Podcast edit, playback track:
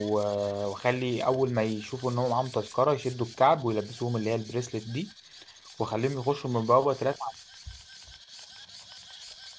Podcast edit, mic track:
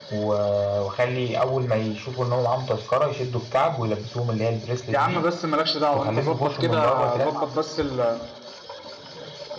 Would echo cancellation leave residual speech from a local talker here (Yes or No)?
Yes